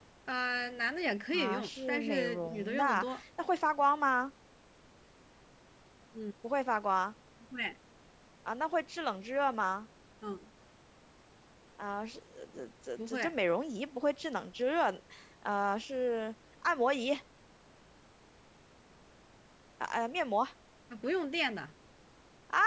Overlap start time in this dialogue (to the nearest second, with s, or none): 1 s